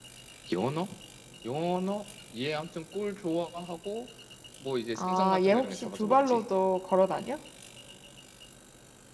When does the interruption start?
5 s

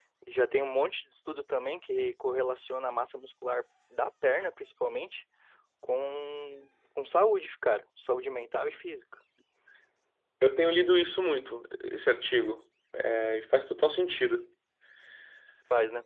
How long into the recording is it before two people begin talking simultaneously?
none

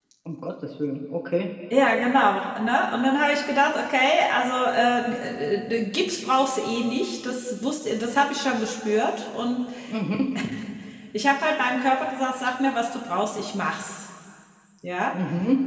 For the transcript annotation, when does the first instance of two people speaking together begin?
none

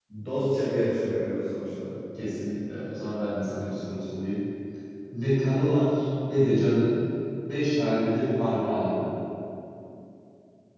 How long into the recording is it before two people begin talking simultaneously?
none

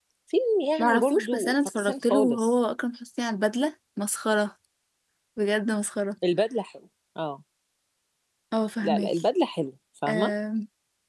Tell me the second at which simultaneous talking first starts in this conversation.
1 s

